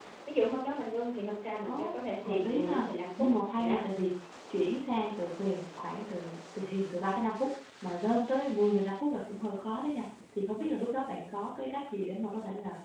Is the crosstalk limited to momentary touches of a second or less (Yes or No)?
No